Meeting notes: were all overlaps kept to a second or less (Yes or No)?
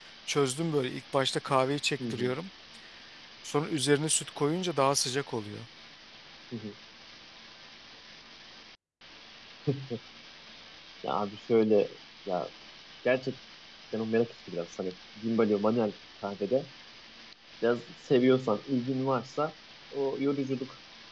Yes